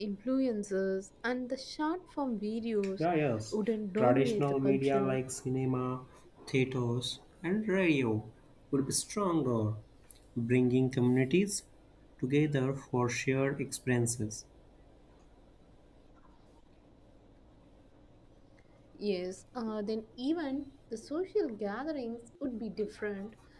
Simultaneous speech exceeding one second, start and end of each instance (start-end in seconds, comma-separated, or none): 4.0-5.2